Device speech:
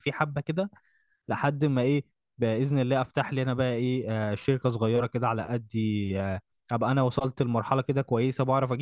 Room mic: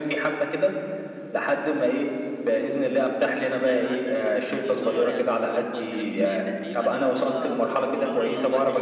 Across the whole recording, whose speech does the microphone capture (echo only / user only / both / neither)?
both